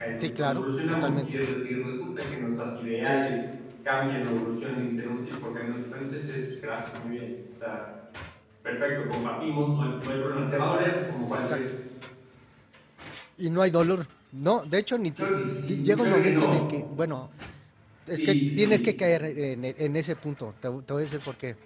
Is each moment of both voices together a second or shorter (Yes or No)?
No